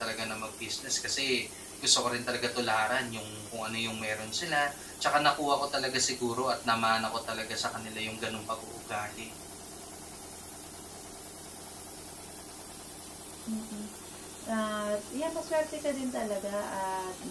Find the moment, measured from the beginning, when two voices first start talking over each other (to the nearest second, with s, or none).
none